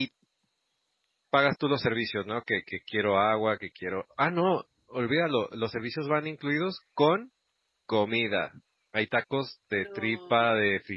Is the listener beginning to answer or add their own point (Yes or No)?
No